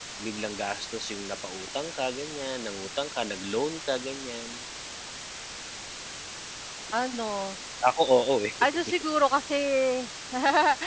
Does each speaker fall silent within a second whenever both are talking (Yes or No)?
Yes